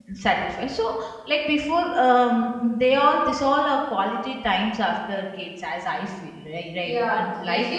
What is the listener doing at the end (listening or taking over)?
taking over